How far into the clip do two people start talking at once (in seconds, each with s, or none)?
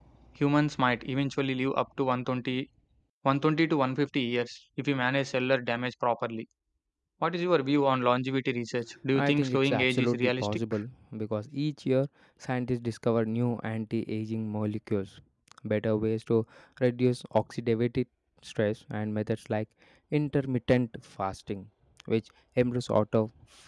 9.2 s